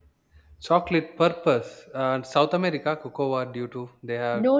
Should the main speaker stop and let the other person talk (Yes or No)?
Yes